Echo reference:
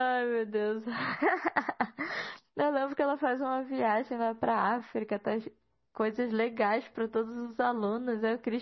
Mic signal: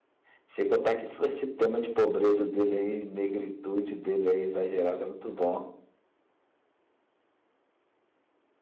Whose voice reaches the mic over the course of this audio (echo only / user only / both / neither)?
user only